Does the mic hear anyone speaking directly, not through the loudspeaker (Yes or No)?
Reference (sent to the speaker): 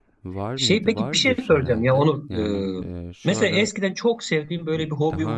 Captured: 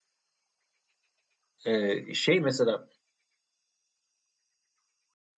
Yes